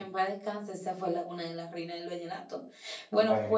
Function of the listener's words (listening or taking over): listening